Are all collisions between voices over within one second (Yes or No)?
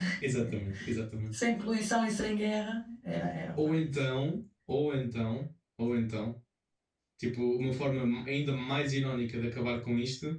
Yes